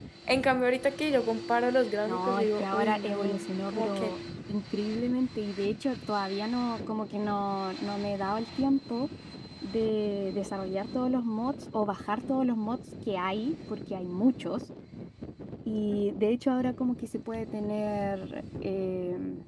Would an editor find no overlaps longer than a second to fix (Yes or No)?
No